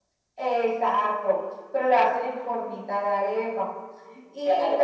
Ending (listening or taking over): taking over